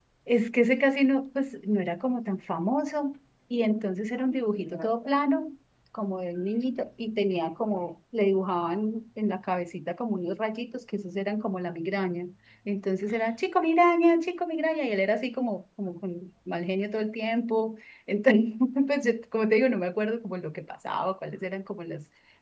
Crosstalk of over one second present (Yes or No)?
No